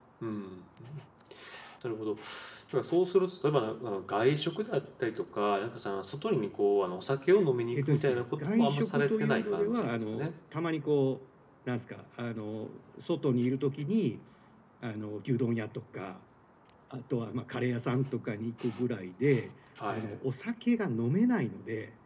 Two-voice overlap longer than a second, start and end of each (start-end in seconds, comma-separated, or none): 7.7-10.3